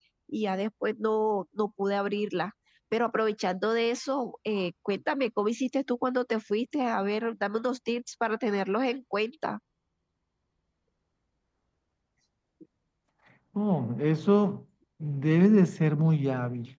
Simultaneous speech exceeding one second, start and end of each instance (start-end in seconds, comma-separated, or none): none